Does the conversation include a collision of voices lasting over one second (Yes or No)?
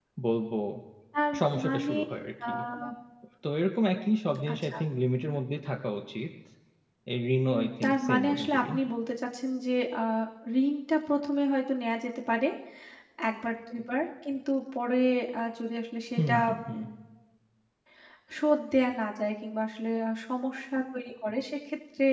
Yes